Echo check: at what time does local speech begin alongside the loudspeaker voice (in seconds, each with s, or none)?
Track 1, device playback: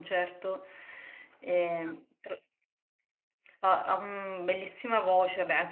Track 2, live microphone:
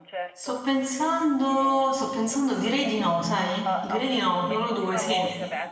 0.3 s